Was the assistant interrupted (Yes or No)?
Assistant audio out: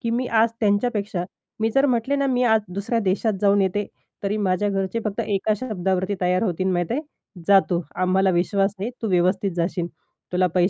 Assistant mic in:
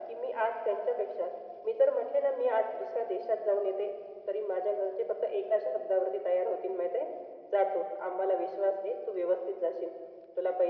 No